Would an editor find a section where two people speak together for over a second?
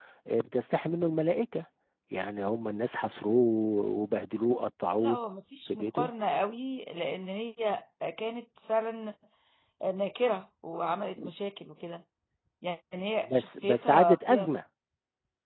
Yes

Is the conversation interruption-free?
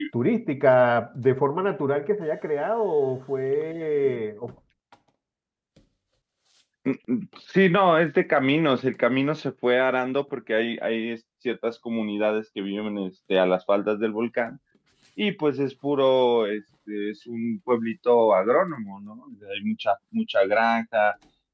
Yes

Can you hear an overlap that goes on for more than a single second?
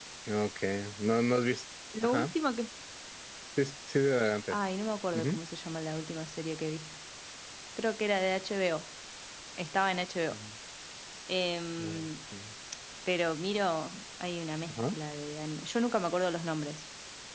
No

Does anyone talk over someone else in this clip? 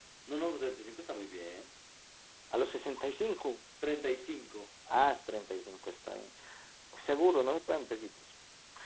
No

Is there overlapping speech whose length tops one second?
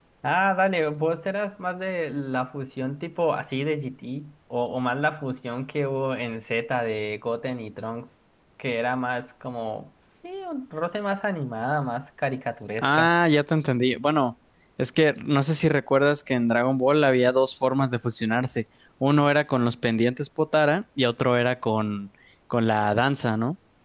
No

